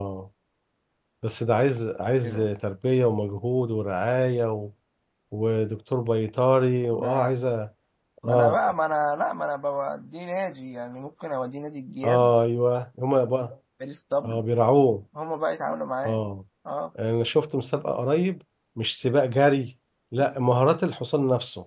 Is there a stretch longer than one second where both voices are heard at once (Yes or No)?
No